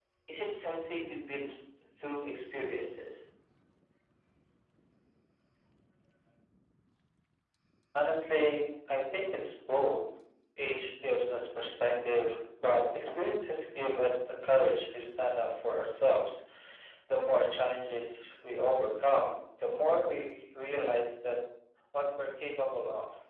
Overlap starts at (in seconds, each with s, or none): none